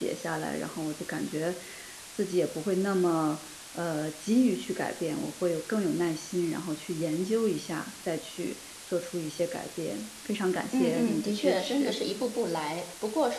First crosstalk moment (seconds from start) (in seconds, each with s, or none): 10.7 s